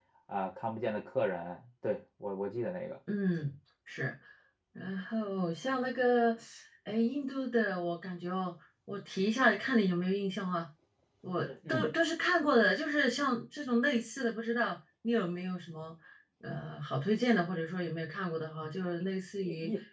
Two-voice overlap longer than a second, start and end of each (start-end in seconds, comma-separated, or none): none